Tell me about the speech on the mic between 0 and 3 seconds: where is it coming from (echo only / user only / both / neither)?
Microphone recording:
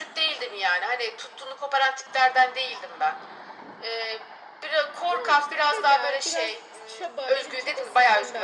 echo only